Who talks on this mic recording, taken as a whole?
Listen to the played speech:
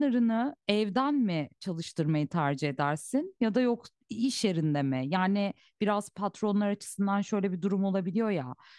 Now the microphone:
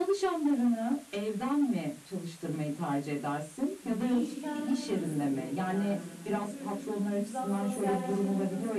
both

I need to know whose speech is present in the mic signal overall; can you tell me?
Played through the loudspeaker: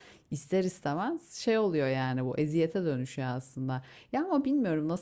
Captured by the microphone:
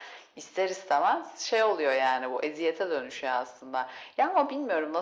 echo only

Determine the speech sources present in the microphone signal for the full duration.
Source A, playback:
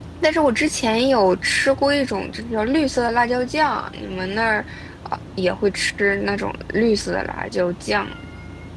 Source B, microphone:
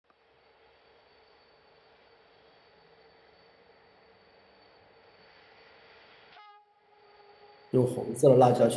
user only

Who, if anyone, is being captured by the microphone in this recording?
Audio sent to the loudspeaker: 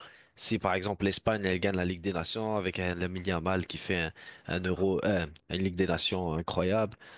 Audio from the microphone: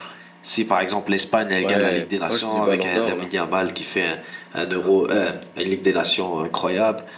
both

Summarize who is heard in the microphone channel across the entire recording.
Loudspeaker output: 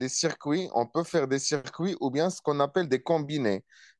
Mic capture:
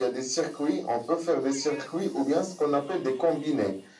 both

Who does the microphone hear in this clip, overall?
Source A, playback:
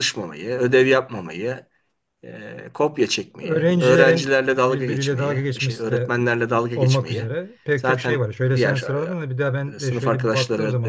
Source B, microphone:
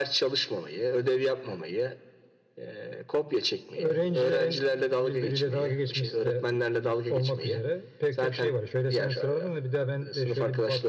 echo only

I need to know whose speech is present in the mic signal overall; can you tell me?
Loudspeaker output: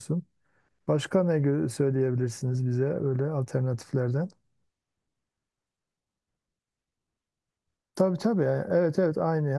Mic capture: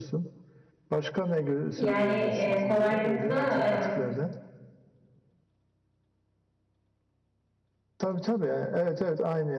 both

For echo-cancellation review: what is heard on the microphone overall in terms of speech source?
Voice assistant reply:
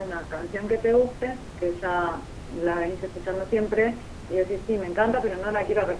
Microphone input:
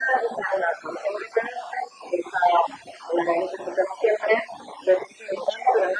echo only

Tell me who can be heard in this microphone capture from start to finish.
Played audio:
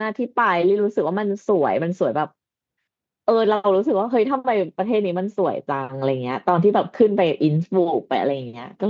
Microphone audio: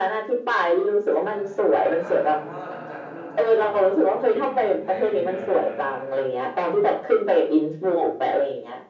both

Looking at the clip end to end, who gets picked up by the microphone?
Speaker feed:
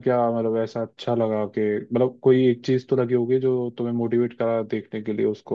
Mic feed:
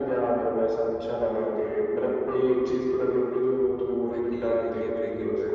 both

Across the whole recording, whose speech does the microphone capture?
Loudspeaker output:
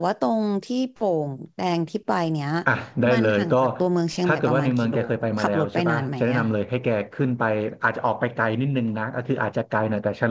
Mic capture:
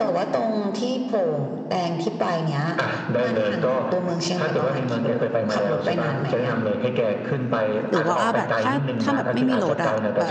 both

